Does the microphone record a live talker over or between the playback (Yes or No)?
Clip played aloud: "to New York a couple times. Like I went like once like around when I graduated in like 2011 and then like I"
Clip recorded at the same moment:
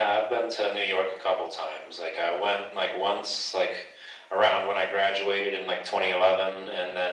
No